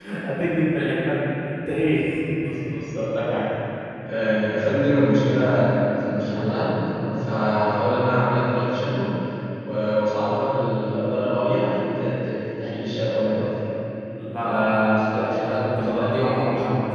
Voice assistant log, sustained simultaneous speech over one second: present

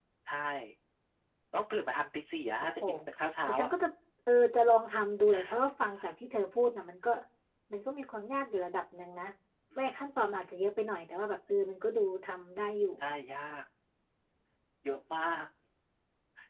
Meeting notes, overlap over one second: none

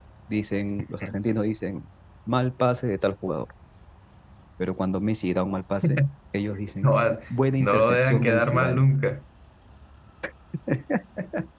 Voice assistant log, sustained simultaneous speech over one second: present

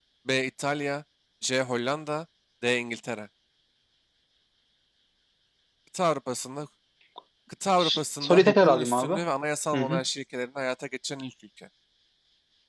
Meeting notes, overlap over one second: present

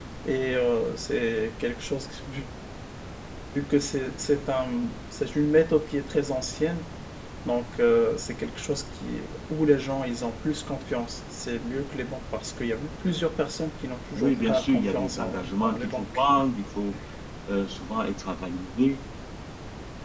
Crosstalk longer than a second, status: present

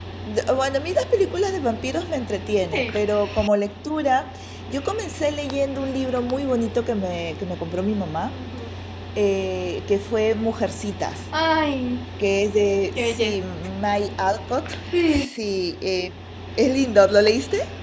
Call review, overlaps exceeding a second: none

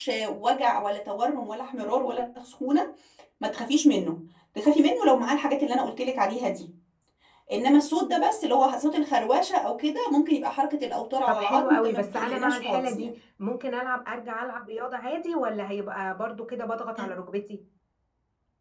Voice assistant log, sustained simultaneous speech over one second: present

